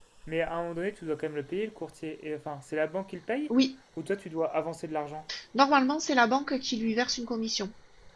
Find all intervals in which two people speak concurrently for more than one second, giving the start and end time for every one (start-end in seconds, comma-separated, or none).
none